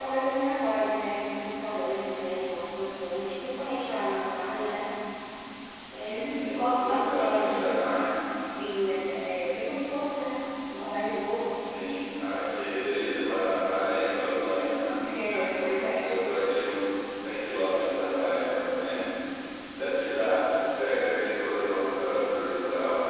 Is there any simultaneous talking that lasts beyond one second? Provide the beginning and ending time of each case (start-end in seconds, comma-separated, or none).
6.0-7.7